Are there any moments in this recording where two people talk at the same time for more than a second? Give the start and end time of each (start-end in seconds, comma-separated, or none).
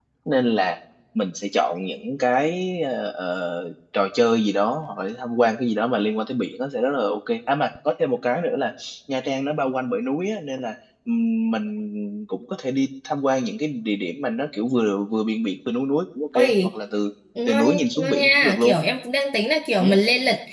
17.5-18.7